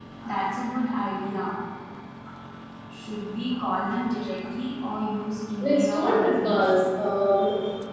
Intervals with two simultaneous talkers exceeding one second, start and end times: 5.6-6.9

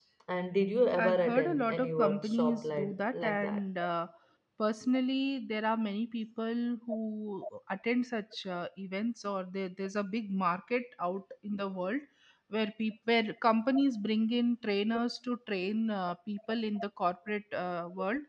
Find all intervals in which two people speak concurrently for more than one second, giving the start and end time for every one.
1.0-3.6

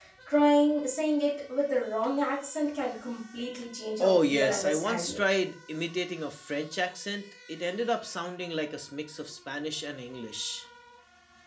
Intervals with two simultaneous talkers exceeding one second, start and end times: 4.0-5.2

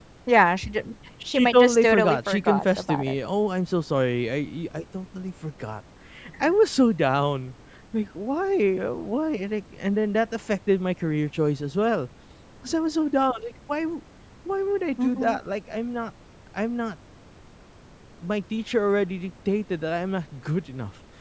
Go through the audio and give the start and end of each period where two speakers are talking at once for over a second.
1.3-3.1

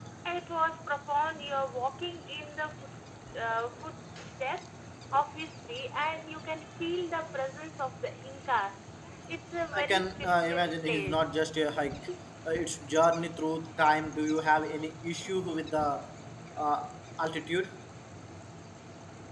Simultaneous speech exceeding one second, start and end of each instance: 9.7-11.3

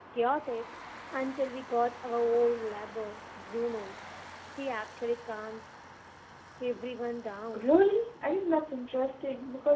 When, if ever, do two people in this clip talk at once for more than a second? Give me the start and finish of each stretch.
none

